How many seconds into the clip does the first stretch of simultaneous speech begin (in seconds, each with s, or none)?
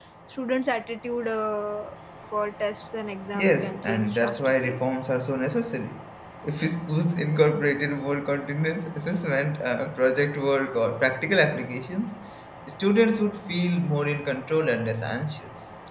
3.3 s